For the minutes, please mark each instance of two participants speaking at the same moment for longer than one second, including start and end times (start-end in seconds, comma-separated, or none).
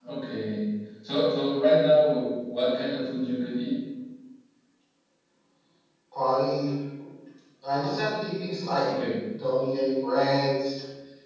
none